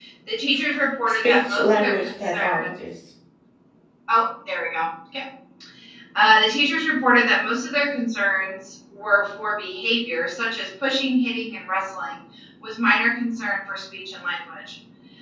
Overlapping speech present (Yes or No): Yes